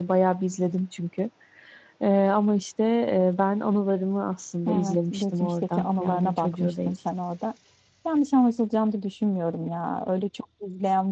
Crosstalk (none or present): present